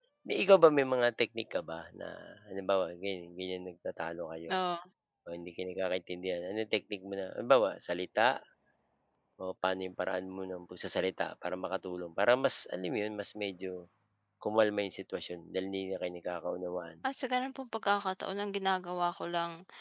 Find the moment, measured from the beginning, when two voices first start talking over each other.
none

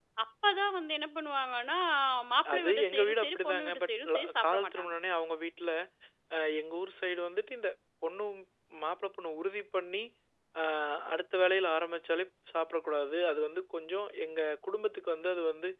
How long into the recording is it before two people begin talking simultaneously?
2.5 s

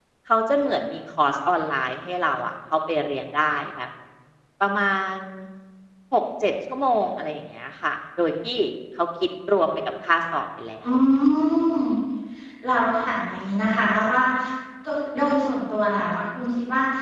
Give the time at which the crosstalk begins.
none

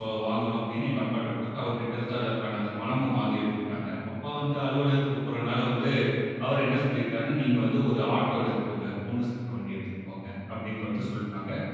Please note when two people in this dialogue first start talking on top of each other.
none

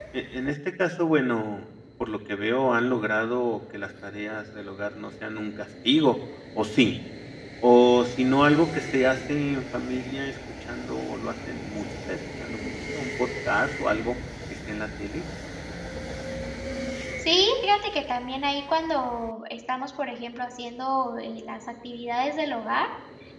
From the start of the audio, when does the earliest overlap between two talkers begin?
none

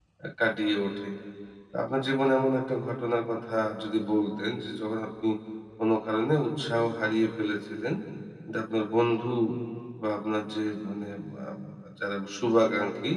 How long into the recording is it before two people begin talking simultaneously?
none

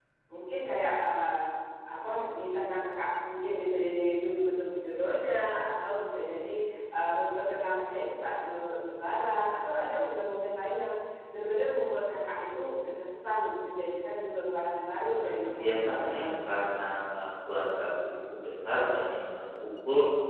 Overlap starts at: 15.2 s

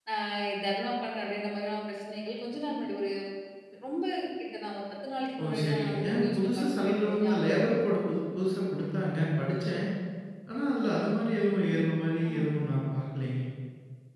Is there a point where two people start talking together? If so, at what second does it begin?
5.4 s

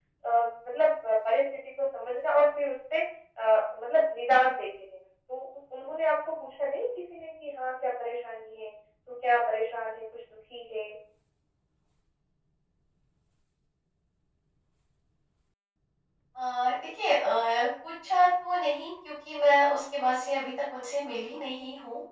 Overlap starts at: none

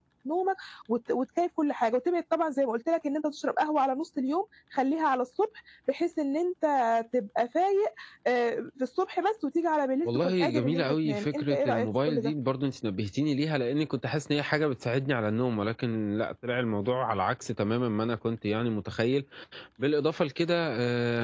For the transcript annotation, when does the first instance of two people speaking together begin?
10.0 s

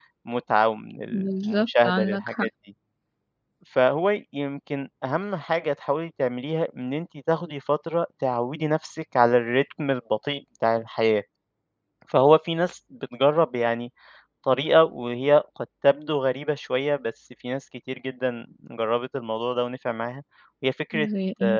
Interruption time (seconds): 1.1 s

